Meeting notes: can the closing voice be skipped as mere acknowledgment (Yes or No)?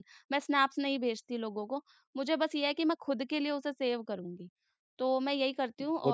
Yes